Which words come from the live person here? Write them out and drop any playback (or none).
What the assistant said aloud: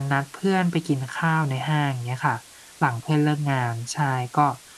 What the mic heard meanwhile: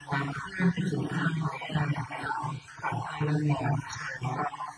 none